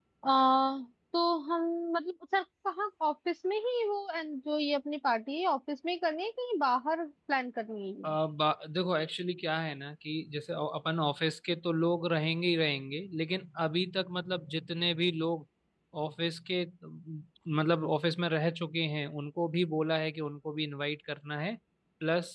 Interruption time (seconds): none

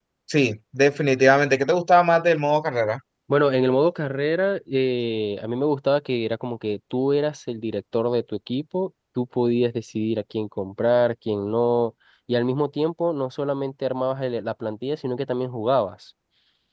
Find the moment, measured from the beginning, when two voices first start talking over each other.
none

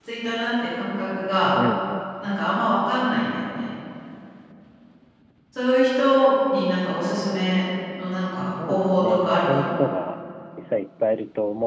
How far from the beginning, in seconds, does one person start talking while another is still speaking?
9 s

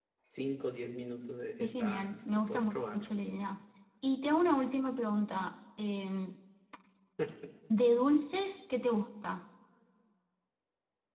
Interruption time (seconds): 2 s

